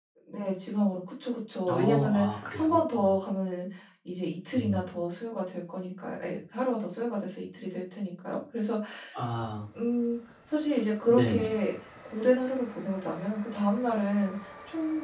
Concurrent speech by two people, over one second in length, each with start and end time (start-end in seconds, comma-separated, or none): 1.7-3.2